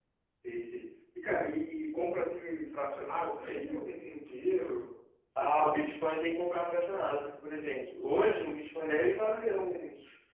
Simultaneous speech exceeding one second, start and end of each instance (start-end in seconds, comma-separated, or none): none